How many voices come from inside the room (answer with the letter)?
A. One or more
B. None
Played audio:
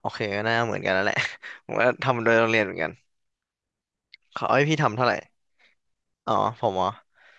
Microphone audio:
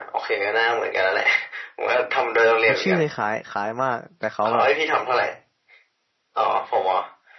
A